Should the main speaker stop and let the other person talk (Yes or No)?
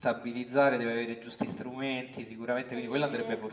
Yes